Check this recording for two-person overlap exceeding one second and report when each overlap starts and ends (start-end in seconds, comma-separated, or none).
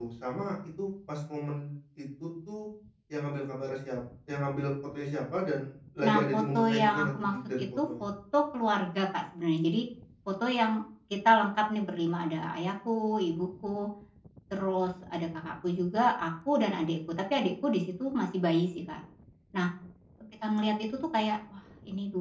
6.0-8.1